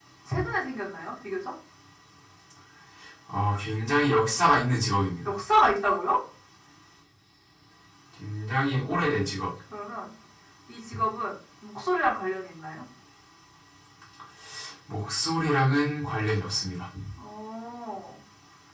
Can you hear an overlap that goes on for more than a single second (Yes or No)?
No